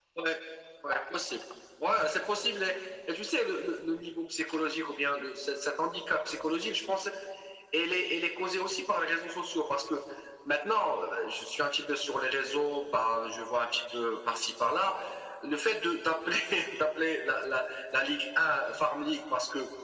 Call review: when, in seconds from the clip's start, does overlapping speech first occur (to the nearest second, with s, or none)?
none